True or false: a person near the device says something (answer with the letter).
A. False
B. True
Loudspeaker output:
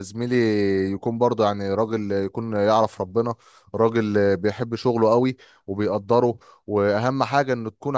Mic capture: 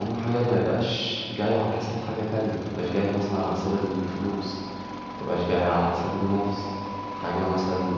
B